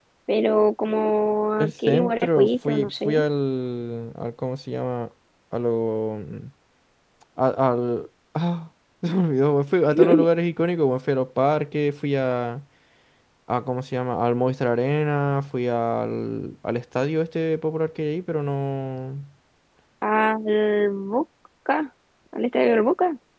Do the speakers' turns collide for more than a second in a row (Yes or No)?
Yes